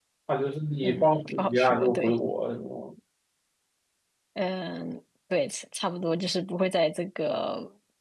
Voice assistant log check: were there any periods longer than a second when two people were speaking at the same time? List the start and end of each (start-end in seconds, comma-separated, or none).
0.8-2.2